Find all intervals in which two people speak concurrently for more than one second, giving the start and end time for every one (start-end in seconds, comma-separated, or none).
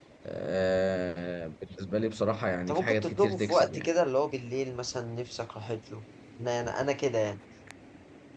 2.7-3.9